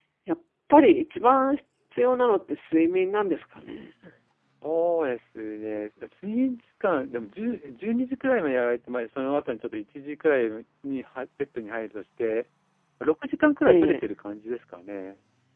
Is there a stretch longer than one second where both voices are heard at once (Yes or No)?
No